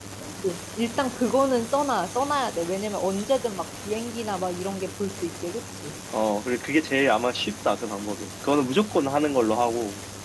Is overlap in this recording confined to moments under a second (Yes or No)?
Yes